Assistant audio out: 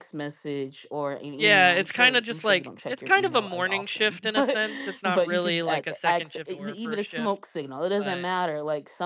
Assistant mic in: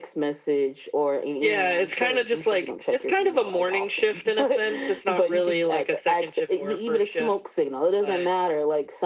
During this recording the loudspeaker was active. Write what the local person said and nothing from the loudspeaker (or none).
none